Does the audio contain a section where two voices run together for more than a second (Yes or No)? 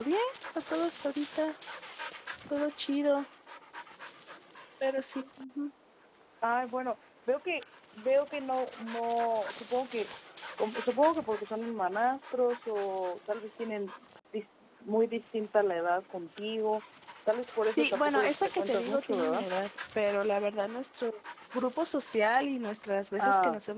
Yes